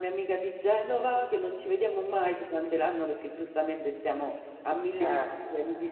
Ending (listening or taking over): listening